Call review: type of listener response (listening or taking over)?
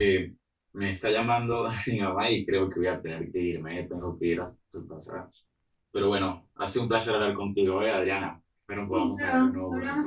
taking over